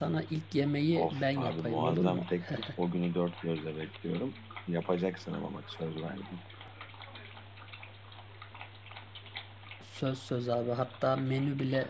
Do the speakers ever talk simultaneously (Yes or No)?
Yes